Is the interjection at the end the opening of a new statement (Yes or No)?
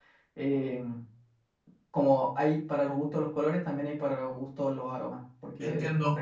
Yes